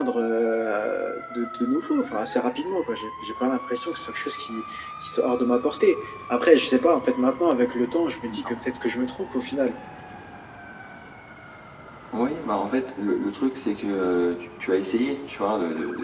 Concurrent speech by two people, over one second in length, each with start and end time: none

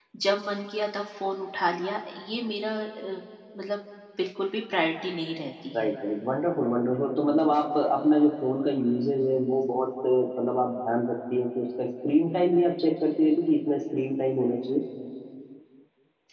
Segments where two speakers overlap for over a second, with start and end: none

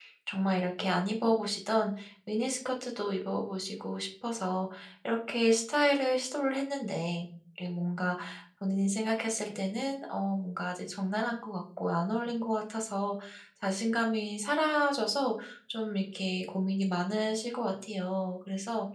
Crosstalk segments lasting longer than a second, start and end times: none

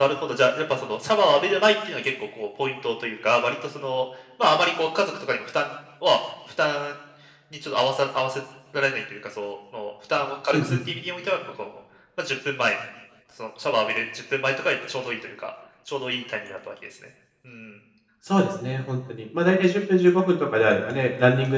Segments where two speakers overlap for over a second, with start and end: none

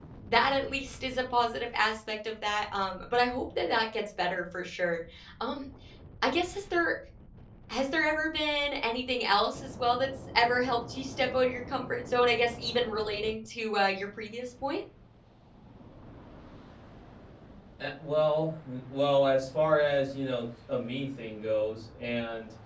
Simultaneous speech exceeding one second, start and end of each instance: none

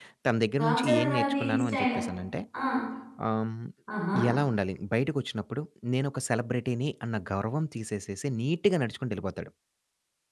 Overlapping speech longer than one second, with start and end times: 0.6-1.9

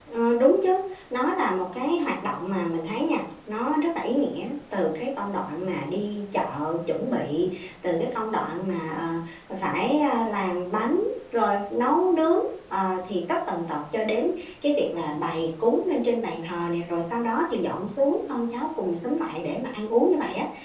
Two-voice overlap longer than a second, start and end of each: none

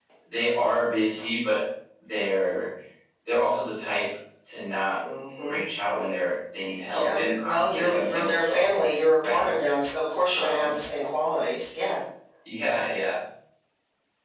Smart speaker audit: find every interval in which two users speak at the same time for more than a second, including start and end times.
6.9-8.7

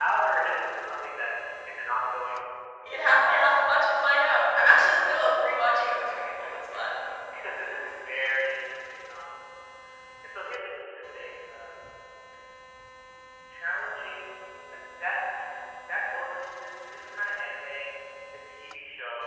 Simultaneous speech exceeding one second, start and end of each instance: 5.4-7.0

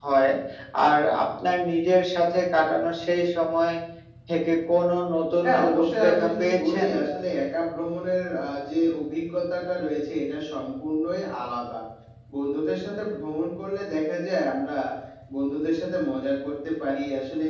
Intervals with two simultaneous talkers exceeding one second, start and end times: 5.4-6.9

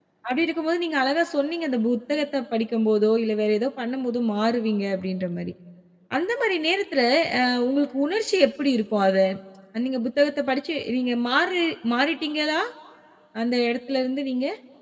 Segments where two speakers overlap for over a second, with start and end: none

